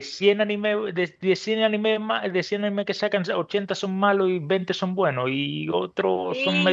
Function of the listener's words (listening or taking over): taking over